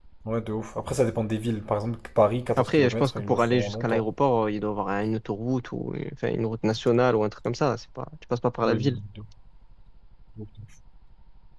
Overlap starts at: 2.6 s

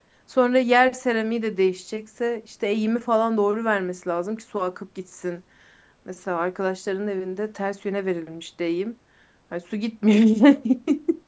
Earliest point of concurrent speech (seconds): none

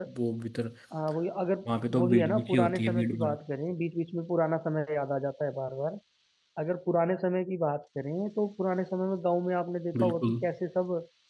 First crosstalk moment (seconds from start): 1.9 s

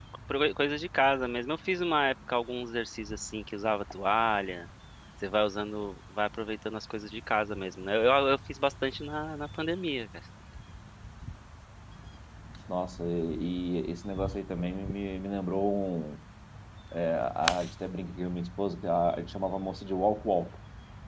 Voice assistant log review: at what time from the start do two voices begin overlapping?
none

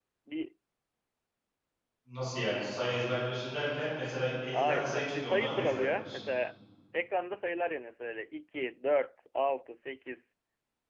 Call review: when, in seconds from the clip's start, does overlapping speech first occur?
4.5 s

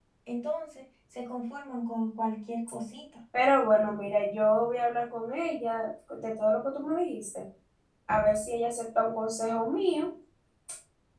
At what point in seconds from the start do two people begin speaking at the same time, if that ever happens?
none

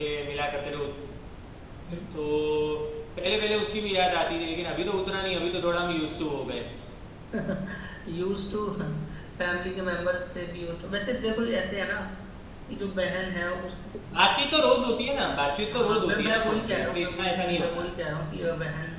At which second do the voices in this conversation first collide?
15.7 s

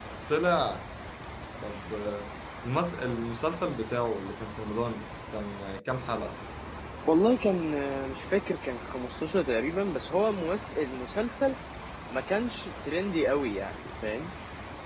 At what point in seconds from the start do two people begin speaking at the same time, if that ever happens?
none

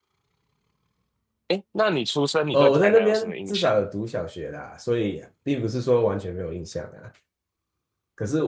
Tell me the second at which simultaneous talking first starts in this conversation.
2.5 s

